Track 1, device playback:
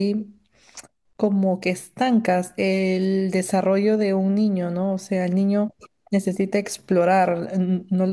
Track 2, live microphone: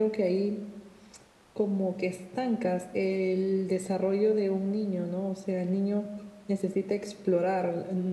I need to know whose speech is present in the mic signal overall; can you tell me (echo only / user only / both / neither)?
echo only